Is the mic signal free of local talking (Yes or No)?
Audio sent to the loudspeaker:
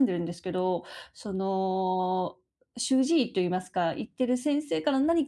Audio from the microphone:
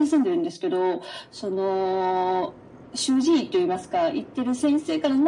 Yes